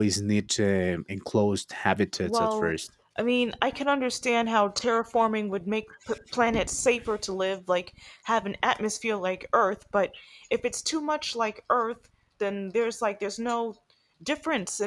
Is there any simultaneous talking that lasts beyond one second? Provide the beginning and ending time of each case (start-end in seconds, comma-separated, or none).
none